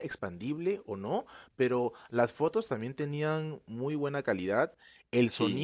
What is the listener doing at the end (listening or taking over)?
listening